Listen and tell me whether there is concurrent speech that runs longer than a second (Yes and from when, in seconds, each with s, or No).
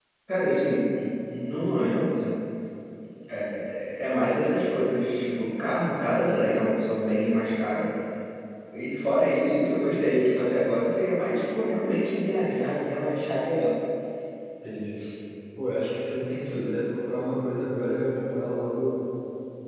No